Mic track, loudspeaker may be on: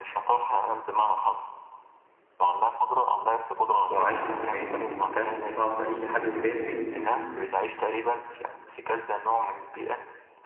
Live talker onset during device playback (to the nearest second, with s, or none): 4 s